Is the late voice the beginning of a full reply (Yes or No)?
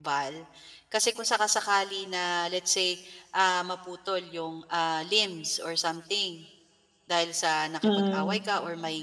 No